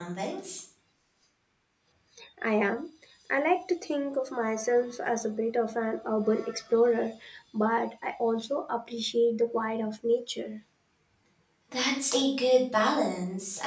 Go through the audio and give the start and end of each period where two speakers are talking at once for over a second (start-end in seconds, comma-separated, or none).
none